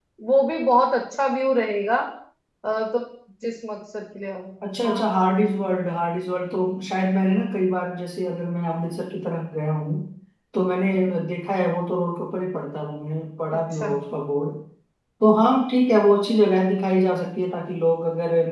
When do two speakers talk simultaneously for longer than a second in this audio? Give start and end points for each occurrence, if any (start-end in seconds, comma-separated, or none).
none